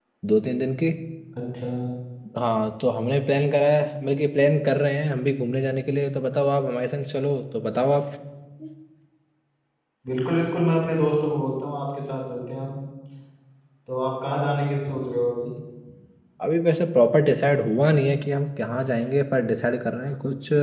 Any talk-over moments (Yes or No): No